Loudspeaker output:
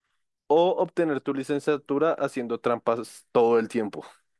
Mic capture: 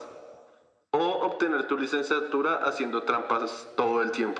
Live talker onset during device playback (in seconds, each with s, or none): none